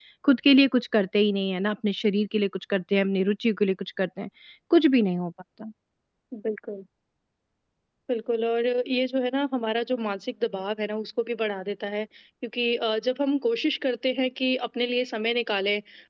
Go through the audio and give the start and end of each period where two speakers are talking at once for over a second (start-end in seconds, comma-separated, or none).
none